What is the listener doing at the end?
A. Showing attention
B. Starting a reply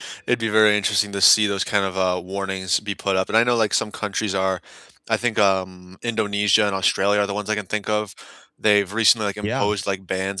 A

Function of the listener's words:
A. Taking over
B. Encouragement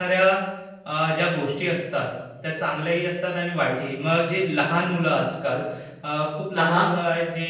B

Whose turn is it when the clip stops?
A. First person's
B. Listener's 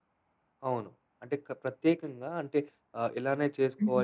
A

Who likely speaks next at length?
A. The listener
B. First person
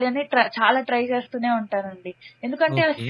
A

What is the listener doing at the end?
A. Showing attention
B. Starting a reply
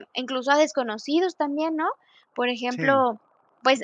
A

